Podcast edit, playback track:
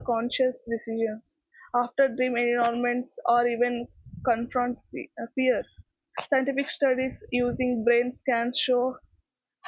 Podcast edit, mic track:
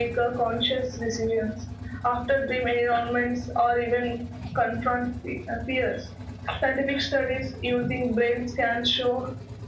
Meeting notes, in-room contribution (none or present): none